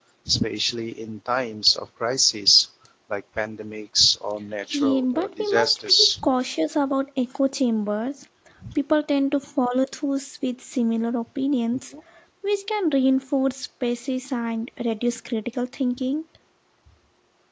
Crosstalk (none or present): present